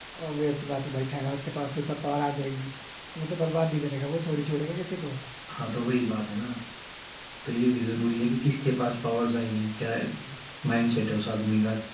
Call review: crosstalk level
none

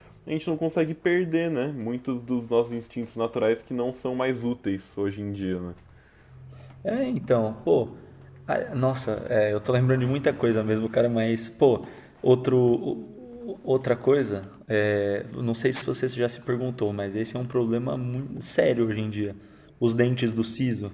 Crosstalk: none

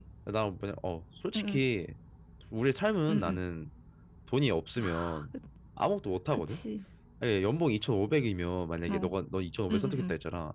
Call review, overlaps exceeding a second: none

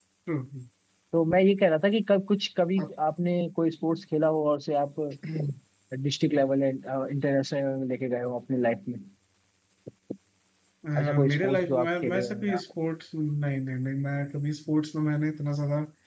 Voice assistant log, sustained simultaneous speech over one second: present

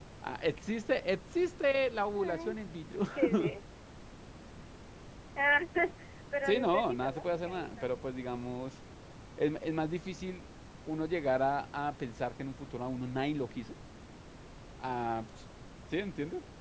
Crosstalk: present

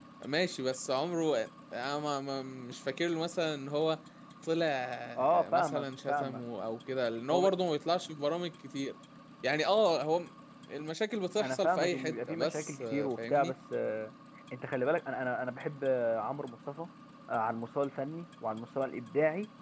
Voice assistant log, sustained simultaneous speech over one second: present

